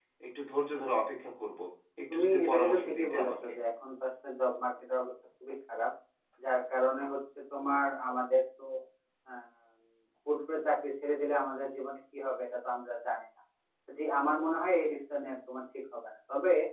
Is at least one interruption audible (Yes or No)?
Yes